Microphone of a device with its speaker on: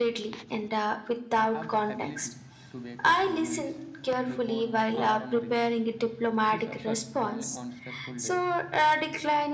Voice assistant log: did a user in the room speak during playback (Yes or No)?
Yes